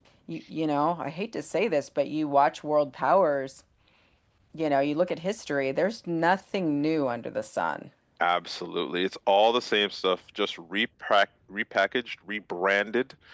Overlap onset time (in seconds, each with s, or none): none